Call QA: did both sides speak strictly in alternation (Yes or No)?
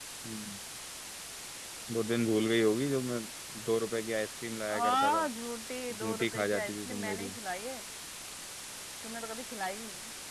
No